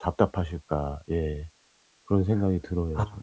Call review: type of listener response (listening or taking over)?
taking over